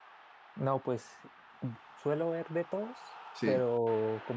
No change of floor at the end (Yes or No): Yes